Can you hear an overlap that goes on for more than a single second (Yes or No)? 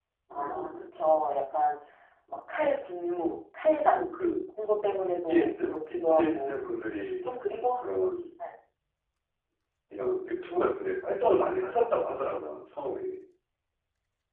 Yes